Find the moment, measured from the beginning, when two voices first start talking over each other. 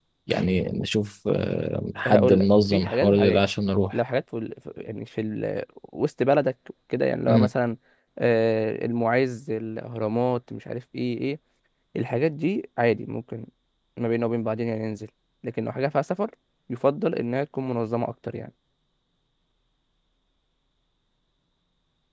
2.0 s

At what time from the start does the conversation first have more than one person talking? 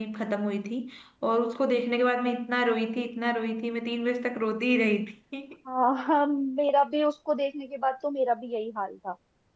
none

